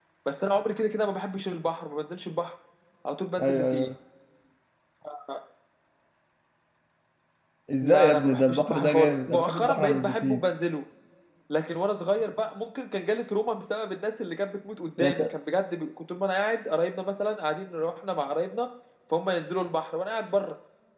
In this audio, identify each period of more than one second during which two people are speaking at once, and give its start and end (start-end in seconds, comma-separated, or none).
7.8-10.4